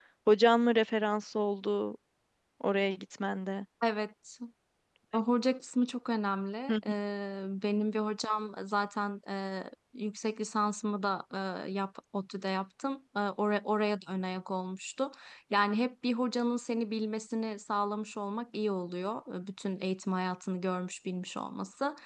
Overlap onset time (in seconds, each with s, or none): none